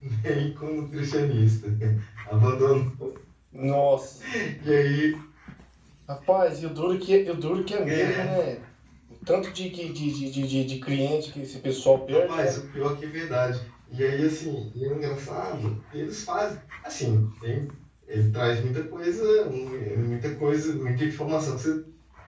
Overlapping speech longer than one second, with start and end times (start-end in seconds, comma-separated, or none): none